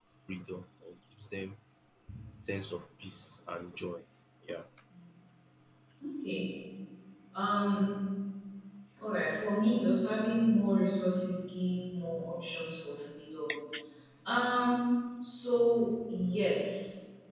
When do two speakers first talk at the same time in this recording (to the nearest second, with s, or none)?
none